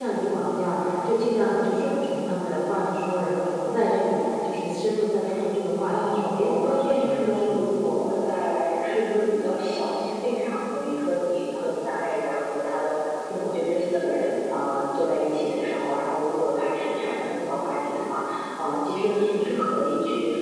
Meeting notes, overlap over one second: present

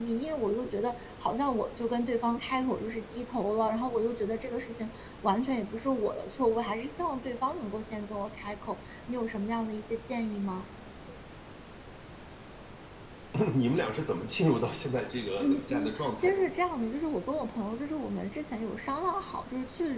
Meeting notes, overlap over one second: present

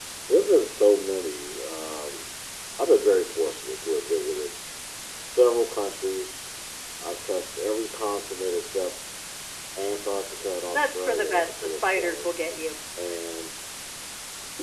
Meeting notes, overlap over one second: present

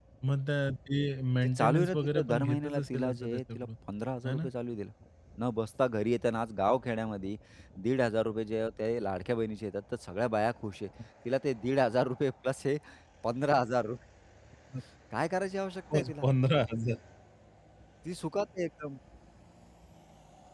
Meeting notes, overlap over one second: present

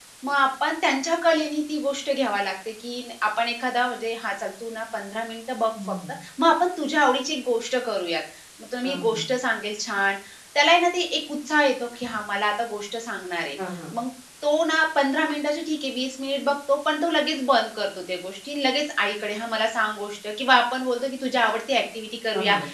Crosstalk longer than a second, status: none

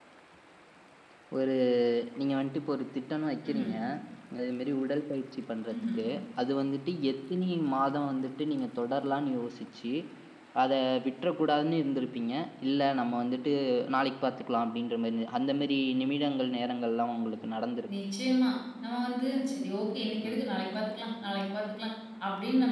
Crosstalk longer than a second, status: none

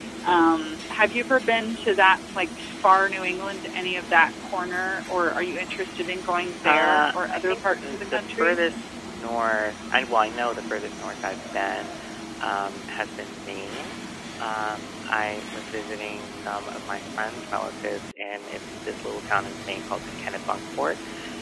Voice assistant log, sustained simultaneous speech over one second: present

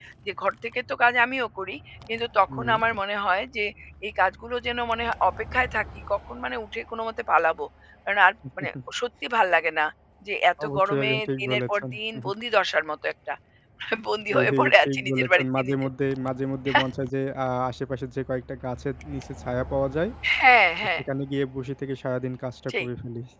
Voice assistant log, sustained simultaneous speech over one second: present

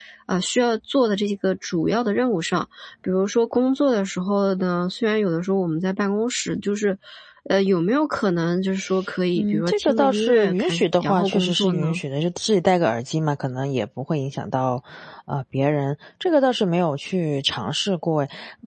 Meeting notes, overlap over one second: present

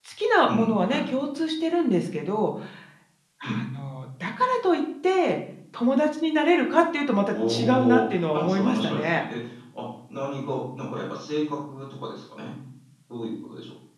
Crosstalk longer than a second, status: present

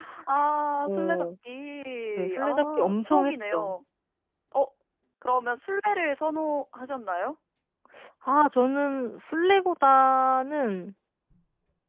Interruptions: present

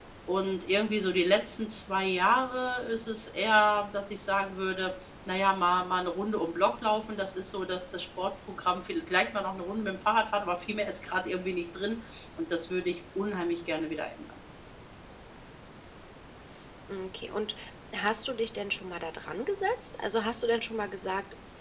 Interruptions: none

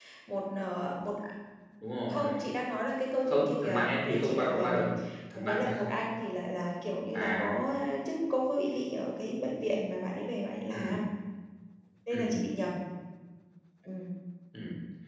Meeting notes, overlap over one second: present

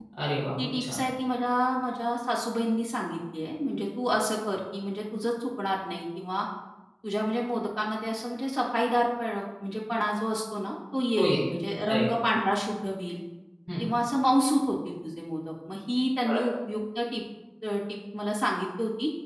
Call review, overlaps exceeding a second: none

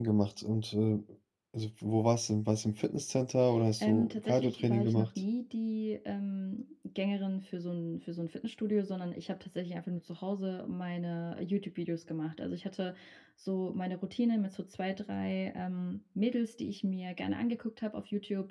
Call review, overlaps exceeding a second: present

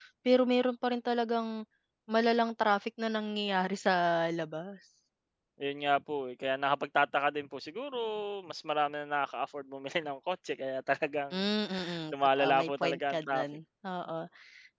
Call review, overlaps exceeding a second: present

